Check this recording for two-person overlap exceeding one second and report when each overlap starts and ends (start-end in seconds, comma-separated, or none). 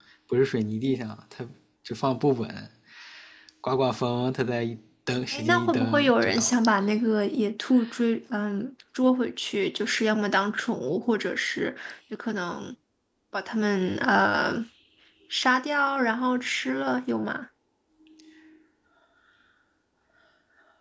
5.3-6.5